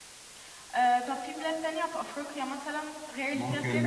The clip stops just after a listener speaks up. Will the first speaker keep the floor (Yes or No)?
No